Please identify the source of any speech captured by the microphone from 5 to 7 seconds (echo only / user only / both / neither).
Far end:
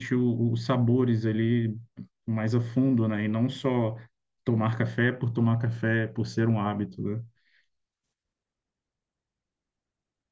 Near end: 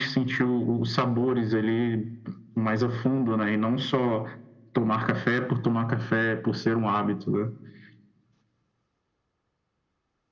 echo only